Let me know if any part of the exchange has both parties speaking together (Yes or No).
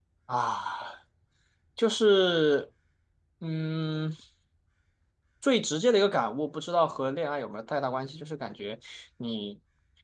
No